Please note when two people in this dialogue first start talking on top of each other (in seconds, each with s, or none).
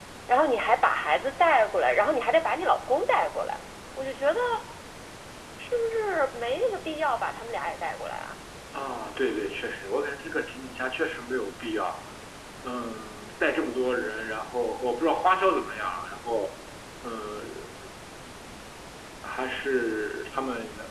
none